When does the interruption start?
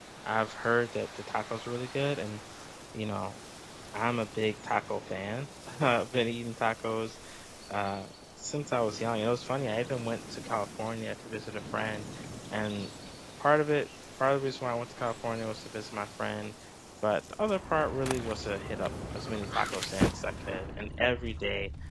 none

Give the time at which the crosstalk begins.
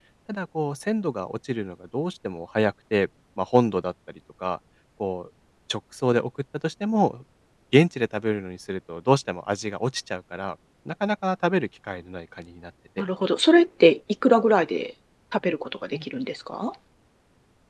none

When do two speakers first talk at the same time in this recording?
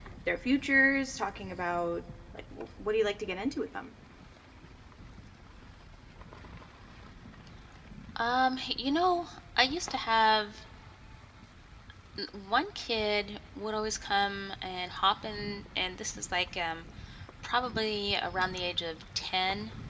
none

